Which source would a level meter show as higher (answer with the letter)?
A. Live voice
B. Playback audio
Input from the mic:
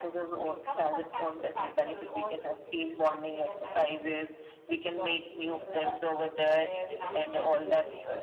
B